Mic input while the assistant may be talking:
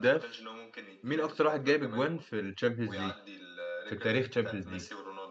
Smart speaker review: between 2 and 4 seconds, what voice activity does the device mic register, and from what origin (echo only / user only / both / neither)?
both